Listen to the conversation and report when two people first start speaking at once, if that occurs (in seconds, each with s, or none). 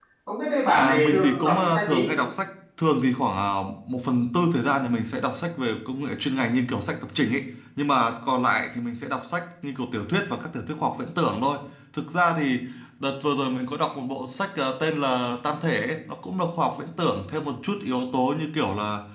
0.7 s